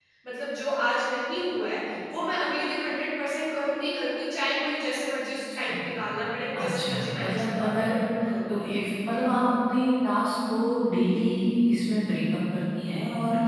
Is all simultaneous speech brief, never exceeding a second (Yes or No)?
No